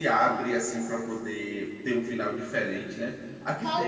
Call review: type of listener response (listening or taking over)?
taking over